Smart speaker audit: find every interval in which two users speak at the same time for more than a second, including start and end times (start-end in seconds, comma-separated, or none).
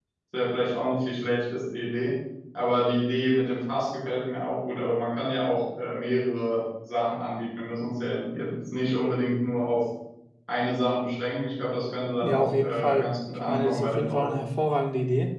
12.2-14.3